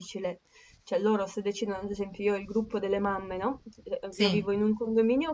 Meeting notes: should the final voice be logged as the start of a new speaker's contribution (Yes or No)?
No